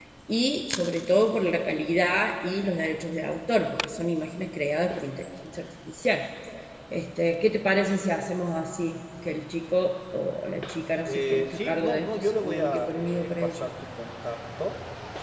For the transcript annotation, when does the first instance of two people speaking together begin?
11.1 s

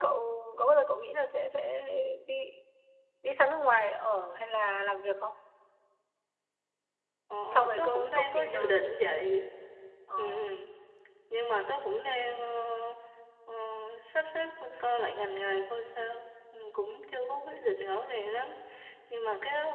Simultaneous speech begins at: 7.5 s

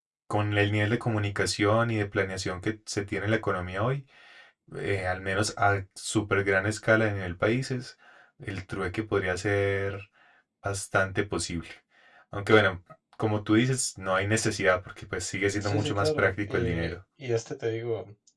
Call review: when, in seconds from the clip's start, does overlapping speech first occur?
15.5 s

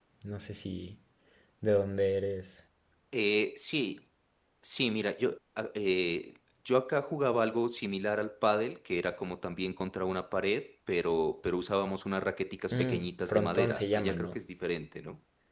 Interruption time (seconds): 12.7 s

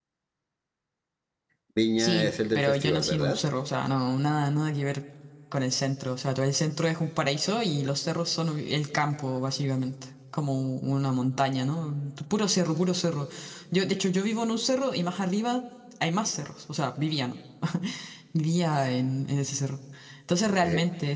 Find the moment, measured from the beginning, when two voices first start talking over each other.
2.0 s

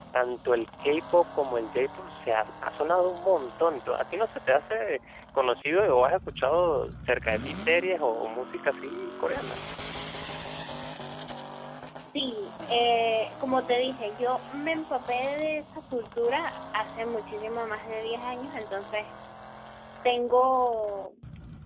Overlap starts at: none

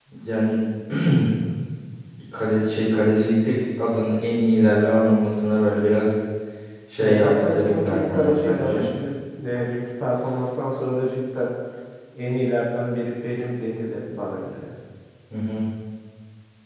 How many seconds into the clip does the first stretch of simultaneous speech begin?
7.0 s

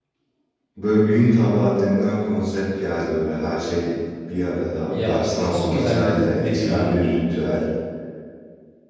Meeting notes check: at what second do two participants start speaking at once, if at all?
4.8 s

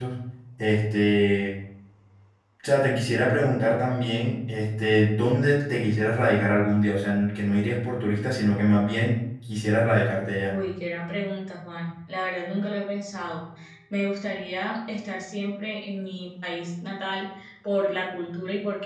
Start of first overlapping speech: none

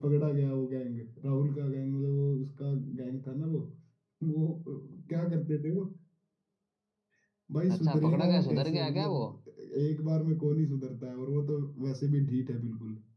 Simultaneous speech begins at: 7.7 s

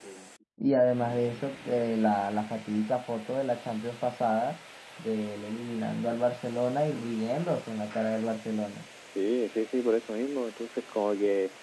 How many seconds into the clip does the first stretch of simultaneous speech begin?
none

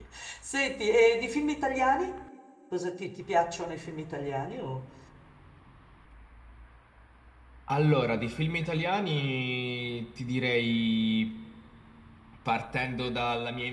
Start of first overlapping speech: none

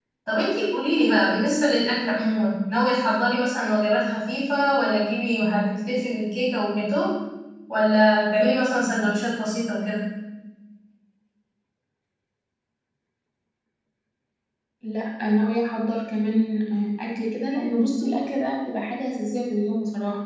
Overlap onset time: none

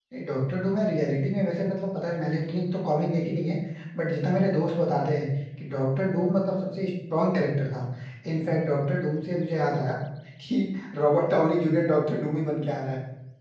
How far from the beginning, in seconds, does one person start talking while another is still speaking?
none

